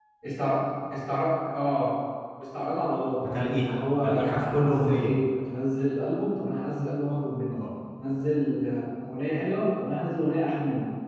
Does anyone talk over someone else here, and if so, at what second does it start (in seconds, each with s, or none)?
3.3 s